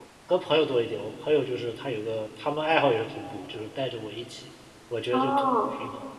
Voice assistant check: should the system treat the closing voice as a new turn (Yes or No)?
No